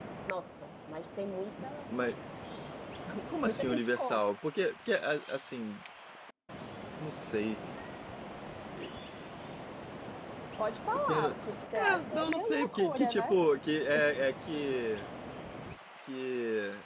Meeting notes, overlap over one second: present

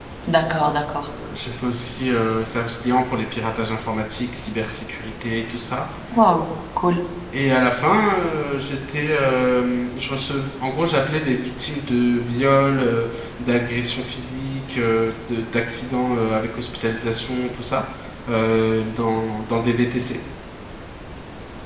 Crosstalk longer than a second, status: none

